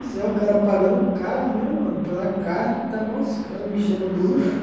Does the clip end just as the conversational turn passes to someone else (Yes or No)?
Yes